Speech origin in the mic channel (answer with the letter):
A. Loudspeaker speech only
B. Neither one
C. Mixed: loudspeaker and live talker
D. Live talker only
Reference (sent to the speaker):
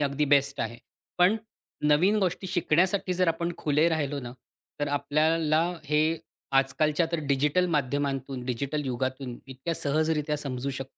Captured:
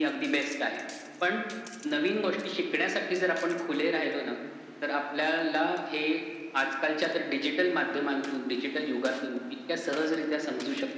A